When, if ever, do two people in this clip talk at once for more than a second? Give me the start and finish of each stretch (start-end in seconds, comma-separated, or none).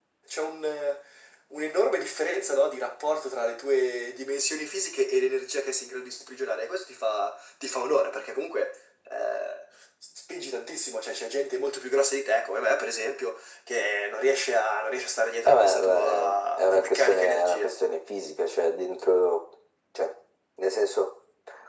15.4-17.7